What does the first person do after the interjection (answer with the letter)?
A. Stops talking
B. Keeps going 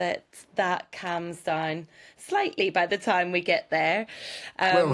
A